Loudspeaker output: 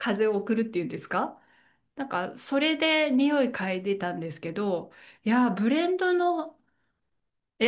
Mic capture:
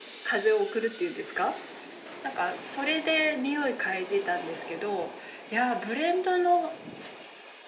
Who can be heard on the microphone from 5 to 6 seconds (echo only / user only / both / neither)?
echo only